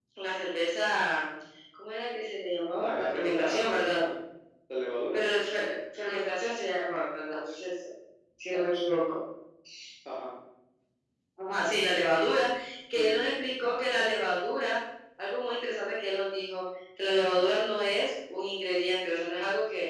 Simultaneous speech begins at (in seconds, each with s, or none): 2.8 s